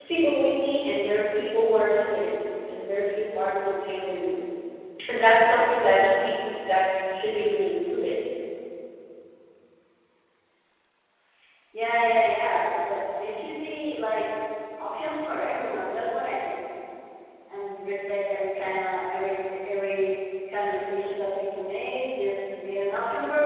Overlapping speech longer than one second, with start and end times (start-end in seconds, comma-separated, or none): none